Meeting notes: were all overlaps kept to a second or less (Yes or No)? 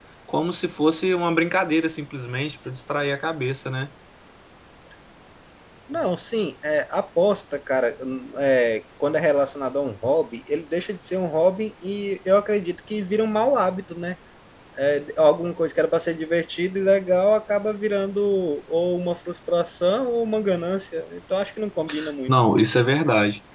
Yes